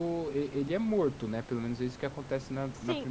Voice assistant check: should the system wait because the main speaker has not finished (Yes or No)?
No